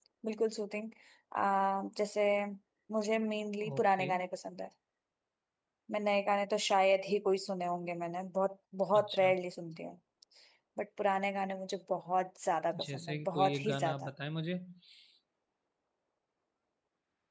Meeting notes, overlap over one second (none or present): present